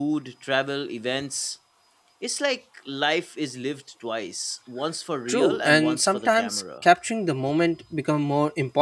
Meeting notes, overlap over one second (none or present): present